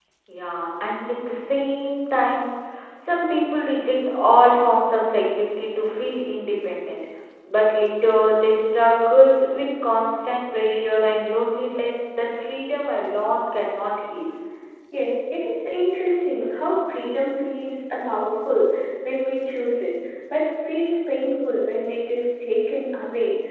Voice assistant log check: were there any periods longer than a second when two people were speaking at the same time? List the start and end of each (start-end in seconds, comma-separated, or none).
none